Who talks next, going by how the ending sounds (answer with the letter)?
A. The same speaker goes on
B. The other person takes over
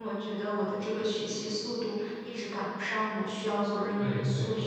B